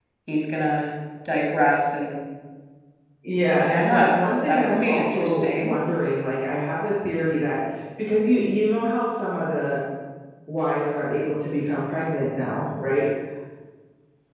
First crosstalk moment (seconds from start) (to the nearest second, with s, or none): 4 s